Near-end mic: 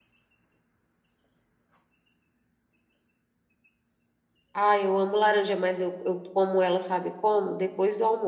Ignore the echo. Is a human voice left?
Yes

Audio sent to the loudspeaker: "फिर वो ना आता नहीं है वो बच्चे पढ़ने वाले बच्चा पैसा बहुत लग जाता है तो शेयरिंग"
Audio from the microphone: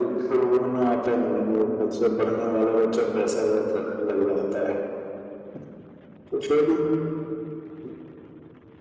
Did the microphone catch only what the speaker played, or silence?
Yes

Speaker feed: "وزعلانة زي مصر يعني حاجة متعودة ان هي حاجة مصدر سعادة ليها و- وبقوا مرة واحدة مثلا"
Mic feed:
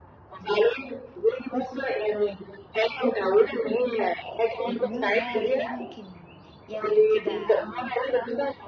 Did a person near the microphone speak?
Yes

